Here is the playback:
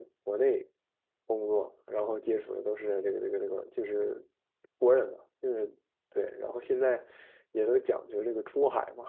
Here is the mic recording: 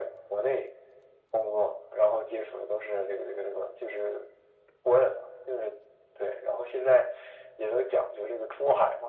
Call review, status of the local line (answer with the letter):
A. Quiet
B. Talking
A